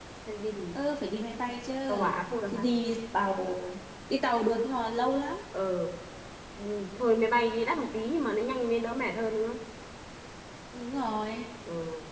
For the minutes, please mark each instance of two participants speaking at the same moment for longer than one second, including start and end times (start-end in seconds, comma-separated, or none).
none